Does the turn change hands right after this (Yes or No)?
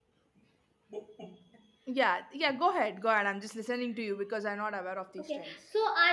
Yes